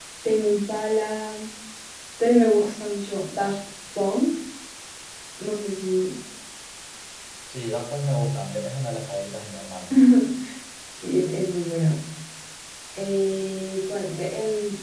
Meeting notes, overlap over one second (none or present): none